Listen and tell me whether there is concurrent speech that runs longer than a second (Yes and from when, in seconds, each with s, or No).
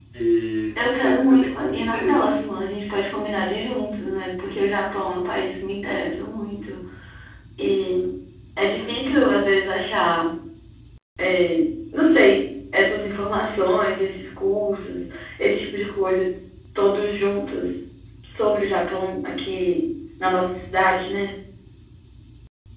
Yes, from 0.8 s